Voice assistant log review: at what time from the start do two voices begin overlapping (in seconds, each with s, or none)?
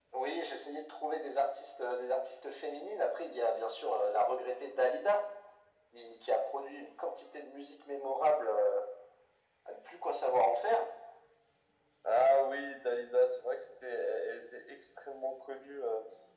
none